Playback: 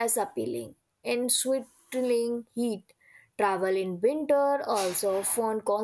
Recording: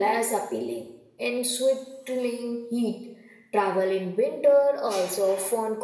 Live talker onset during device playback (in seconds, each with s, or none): none